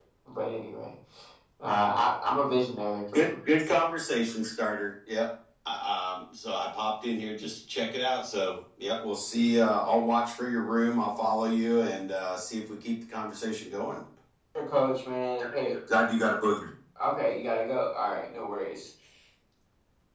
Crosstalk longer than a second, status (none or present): none